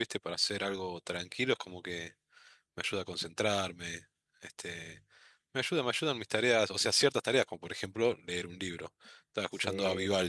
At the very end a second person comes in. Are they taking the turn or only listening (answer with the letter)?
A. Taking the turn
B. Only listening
A